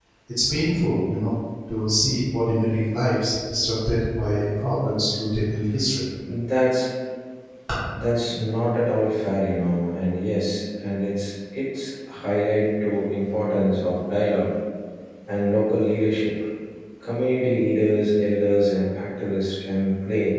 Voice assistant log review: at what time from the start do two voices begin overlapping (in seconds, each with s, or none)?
none